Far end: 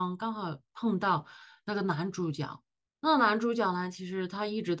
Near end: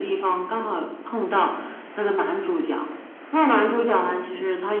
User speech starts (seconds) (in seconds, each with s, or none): none